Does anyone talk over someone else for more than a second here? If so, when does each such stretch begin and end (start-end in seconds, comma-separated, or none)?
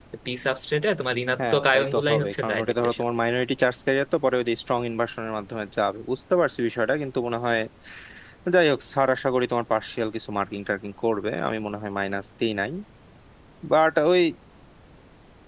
1.4-3.0